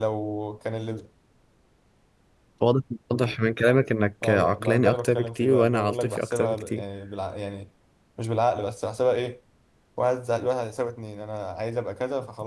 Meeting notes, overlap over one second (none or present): present